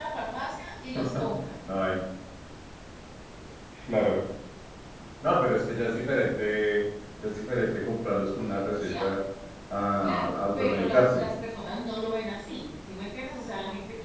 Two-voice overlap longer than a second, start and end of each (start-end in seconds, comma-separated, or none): 10.0-11.2